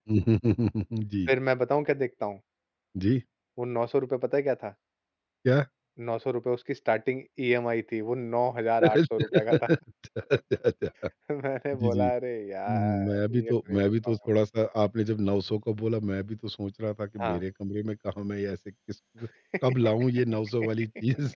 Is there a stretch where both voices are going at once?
Yes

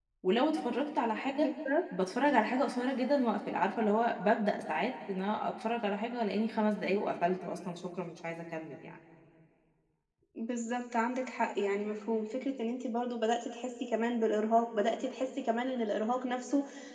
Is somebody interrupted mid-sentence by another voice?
No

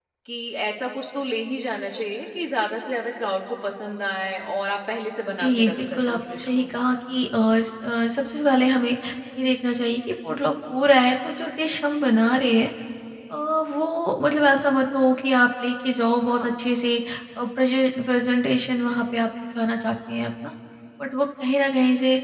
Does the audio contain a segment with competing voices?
Yes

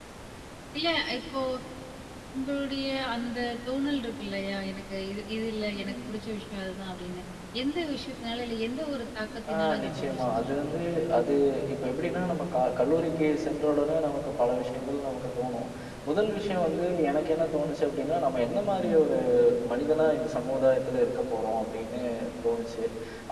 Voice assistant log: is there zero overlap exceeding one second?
No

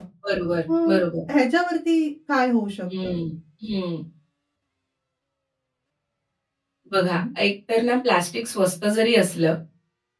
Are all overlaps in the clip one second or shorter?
Yes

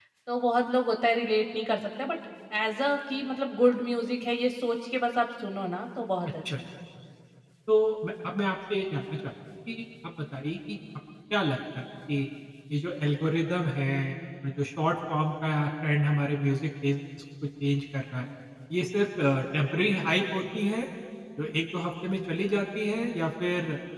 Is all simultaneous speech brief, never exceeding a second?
Yes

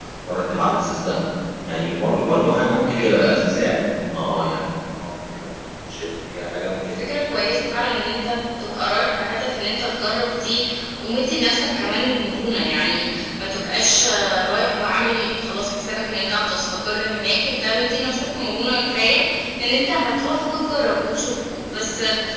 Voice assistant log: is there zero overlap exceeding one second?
Yes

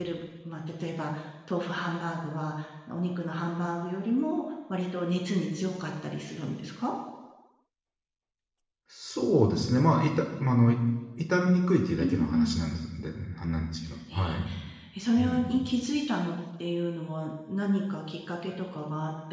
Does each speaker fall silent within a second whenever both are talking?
Yes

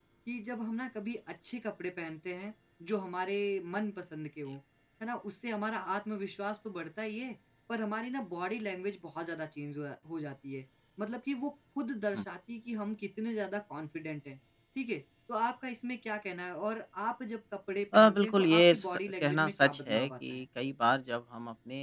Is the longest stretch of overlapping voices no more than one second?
No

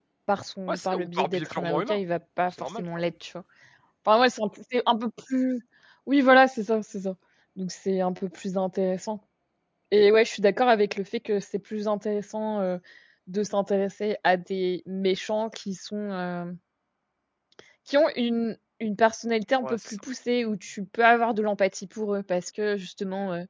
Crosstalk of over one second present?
Yes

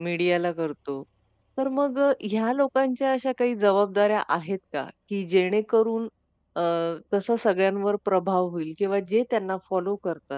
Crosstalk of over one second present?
No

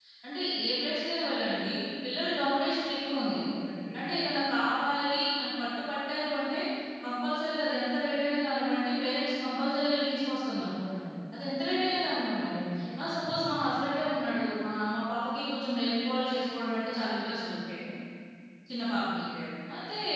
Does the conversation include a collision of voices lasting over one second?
No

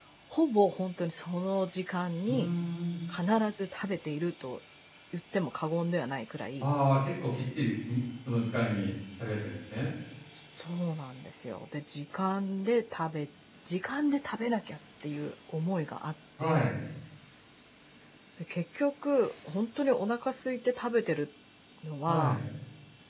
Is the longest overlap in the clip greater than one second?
No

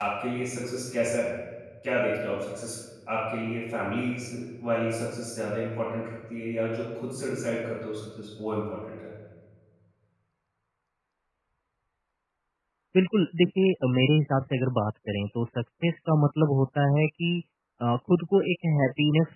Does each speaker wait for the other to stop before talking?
Yes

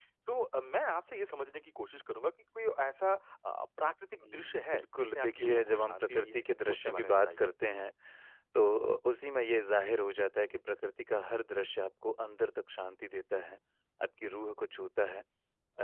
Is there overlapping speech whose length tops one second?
Yes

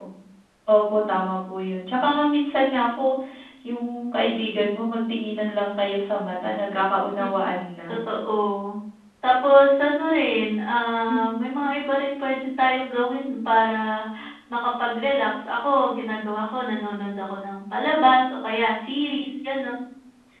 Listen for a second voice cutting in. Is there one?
No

